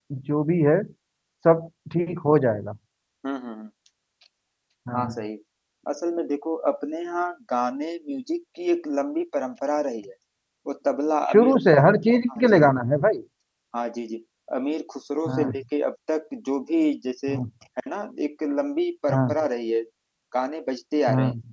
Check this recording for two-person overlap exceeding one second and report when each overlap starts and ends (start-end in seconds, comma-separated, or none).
none